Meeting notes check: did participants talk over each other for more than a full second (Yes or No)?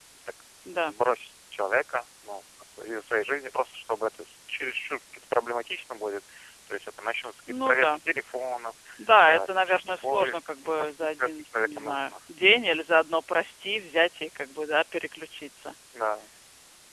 Yes